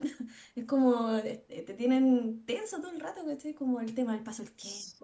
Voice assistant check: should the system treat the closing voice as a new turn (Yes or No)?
No